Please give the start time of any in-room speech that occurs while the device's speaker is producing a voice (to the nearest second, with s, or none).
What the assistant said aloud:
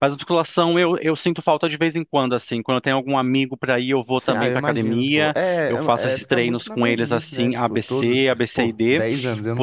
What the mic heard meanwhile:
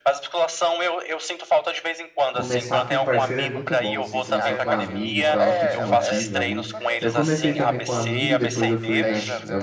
2 s